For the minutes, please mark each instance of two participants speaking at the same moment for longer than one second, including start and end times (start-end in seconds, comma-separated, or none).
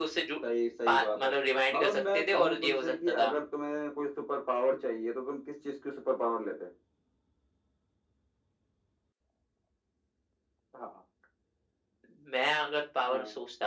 1.7-3.3